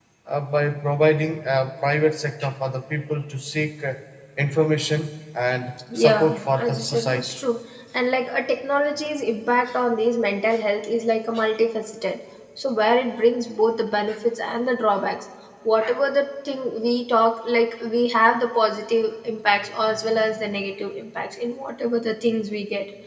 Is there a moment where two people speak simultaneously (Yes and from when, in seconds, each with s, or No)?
Yes, from 5.9 s